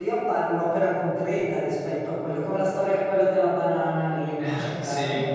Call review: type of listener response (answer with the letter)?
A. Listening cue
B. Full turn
A